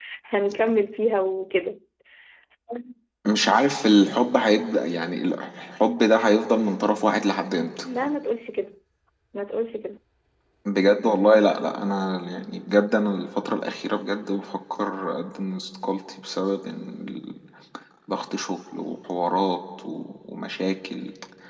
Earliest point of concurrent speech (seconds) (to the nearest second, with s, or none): none